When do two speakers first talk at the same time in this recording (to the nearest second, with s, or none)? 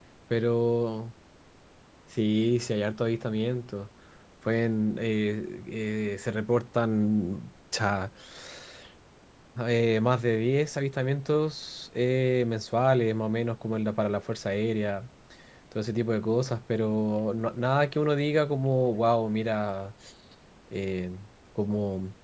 none